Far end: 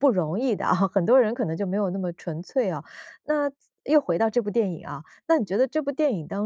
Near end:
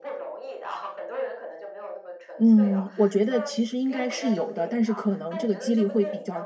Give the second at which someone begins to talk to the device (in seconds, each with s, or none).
2.4 s